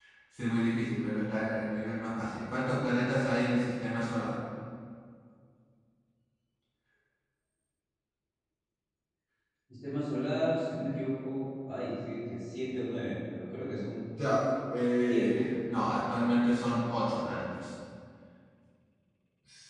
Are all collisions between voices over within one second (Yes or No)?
Yes